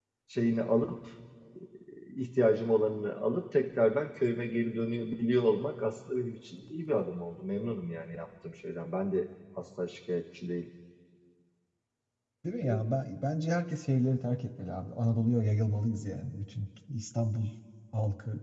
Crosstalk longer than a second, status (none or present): none